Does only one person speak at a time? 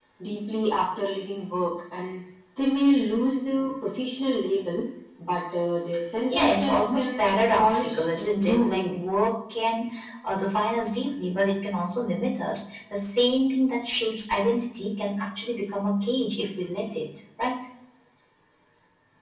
No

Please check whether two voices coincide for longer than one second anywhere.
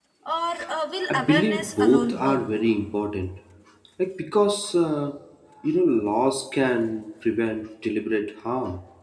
Yes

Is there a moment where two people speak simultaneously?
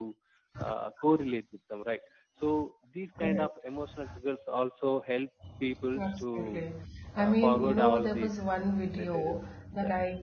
Yes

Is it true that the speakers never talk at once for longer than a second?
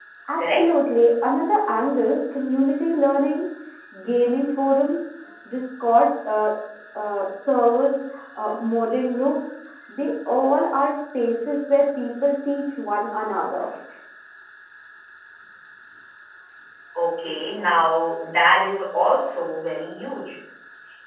Yes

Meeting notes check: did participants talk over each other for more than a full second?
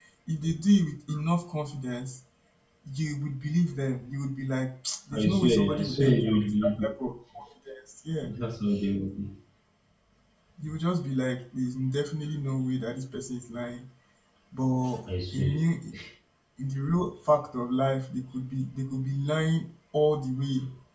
Yes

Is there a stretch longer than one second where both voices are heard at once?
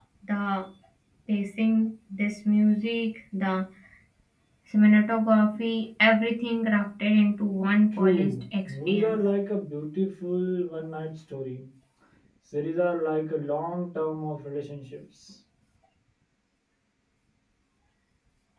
Yes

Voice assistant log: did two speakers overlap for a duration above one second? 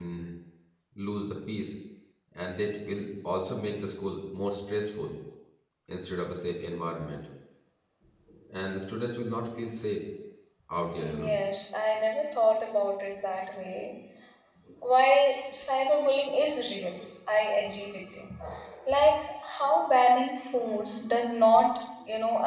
No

